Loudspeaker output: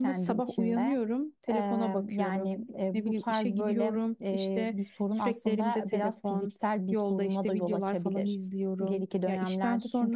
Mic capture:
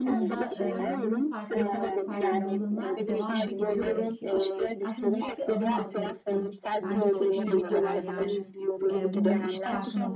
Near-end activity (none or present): present